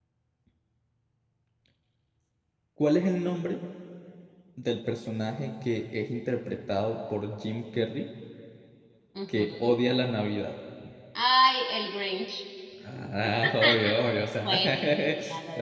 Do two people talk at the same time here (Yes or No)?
Yes